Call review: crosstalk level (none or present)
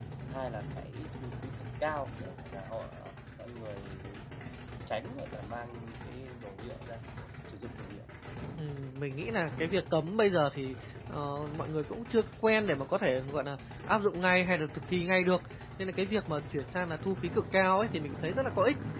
none